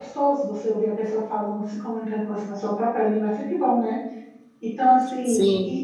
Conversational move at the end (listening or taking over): taking over